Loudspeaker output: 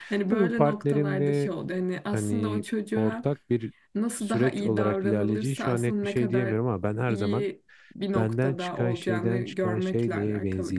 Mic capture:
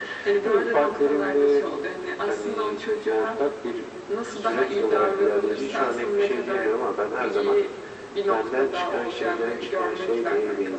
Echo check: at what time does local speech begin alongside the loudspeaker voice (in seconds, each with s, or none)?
none